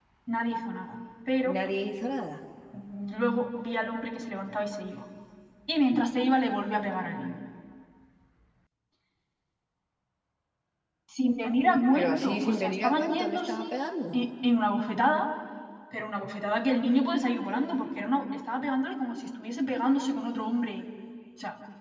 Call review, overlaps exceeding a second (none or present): present